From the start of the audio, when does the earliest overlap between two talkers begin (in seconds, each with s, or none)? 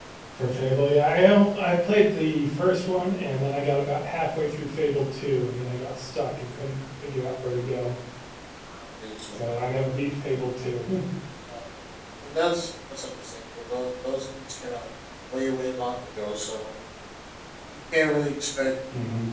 none